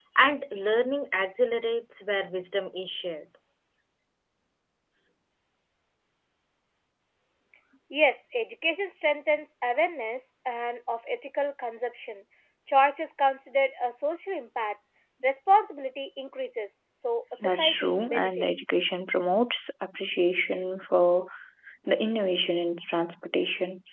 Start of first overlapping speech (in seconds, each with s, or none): 17.4 s